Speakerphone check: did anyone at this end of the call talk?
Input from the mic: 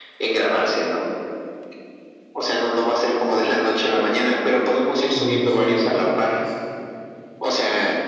Yes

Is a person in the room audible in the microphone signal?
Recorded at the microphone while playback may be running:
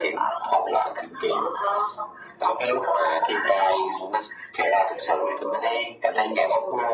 No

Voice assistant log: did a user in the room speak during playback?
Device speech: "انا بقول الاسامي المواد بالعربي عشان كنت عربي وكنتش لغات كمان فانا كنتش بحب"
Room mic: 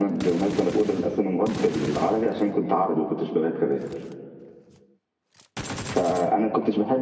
No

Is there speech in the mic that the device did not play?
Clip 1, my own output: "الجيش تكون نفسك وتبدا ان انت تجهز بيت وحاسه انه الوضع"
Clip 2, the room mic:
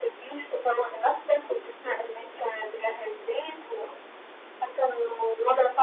No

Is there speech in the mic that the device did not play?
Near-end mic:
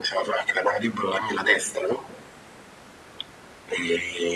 No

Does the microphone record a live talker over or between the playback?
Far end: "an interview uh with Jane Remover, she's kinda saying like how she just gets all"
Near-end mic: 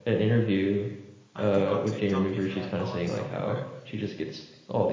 Yes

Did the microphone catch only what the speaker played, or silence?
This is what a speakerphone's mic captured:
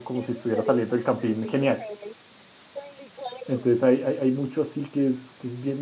No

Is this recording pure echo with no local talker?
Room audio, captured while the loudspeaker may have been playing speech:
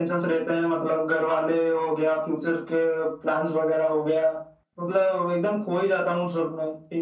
Yes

